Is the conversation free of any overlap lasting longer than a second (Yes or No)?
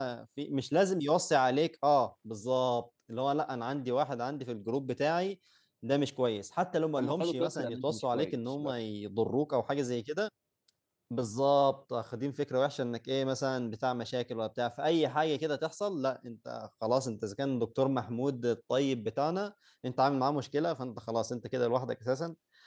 No